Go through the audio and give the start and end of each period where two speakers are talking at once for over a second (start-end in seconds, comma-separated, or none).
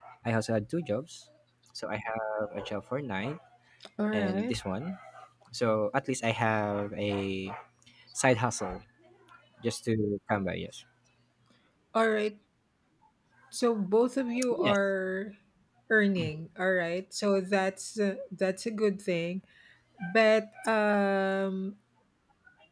none